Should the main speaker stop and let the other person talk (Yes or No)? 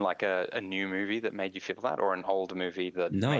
Yes